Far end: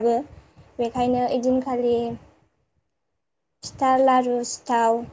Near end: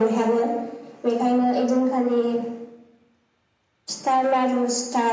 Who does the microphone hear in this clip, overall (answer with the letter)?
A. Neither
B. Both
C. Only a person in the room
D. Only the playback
D